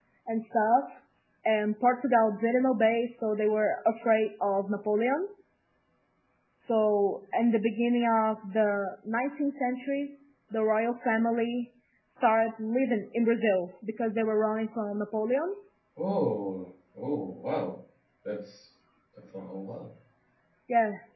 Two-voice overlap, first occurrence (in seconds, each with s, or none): none